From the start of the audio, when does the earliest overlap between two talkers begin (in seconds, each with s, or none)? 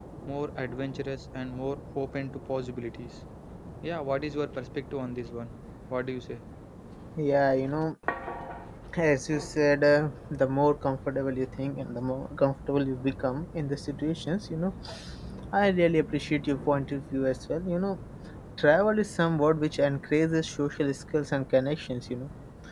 none